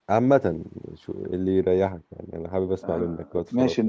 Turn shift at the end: Yes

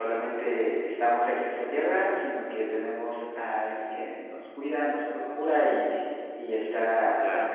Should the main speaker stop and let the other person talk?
Yes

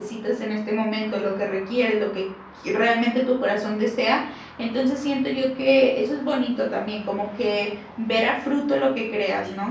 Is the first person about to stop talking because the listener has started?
Yes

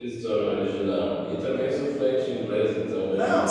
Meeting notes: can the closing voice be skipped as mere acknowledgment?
No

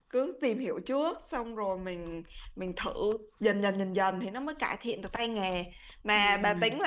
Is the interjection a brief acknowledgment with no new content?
Yes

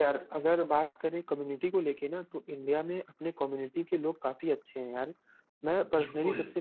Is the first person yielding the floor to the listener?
No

